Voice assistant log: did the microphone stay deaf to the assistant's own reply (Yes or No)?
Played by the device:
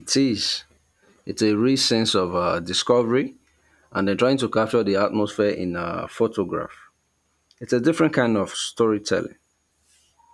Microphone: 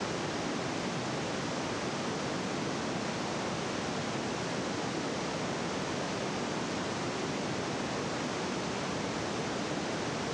Yes